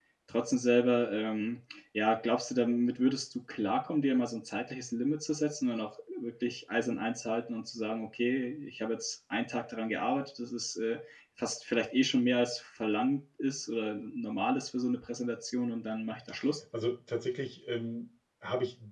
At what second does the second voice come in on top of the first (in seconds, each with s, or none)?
none